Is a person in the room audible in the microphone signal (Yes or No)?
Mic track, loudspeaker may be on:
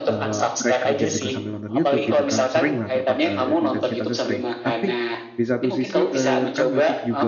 Yes